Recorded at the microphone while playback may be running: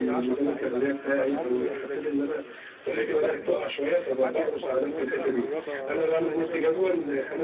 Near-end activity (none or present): present